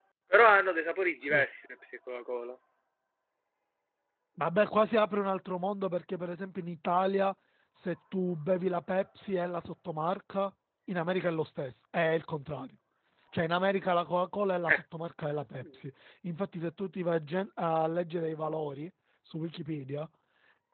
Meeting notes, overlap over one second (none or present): none